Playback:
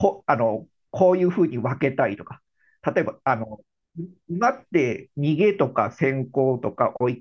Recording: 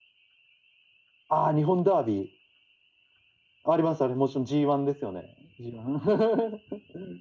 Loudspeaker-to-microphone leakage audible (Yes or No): No